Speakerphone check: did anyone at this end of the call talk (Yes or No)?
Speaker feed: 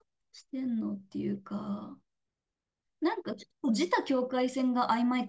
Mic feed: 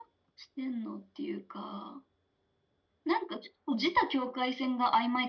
No